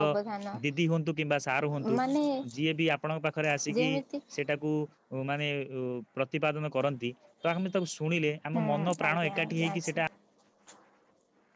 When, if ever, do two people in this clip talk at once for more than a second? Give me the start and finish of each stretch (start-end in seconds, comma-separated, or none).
8.5-9.9